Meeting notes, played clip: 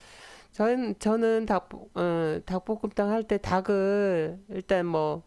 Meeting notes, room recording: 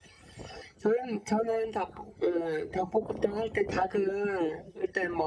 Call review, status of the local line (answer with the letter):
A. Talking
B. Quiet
B